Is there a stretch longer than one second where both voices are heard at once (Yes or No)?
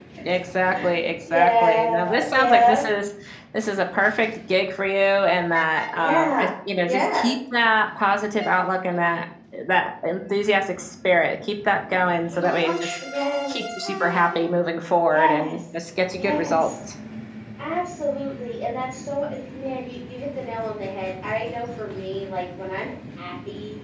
Yes